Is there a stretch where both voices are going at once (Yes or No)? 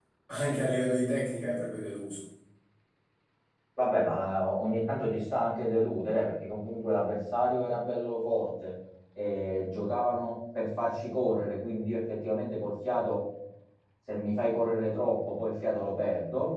No